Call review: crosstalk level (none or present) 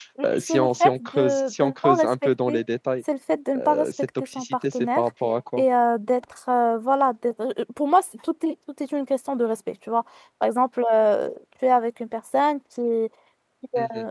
present